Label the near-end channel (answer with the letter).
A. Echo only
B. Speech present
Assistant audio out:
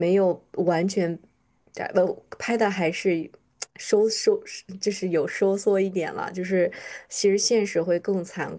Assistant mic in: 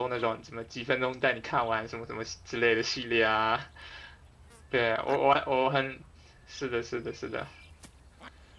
B